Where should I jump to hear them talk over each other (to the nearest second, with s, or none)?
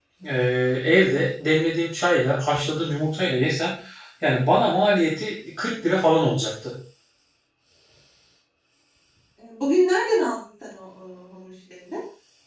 none